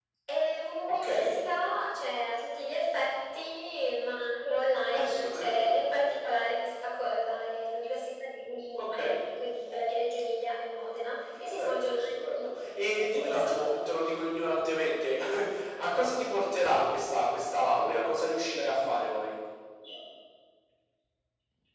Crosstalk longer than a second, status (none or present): present